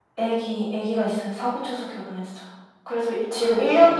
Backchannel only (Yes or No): Yes